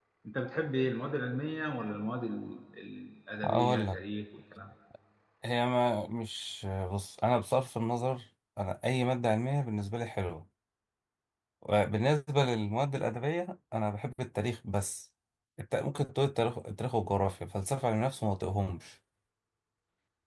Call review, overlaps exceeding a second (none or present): none